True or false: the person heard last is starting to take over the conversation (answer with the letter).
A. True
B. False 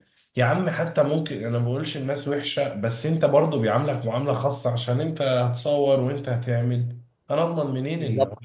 A